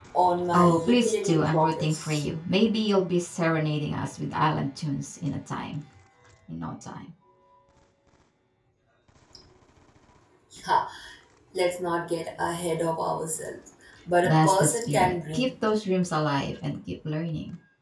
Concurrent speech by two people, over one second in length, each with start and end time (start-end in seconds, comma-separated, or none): 0.5-2.2, 14.2-15.5